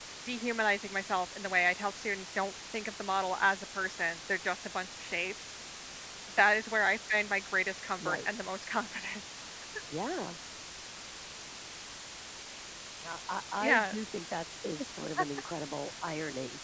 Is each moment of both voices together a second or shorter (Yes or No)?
Yes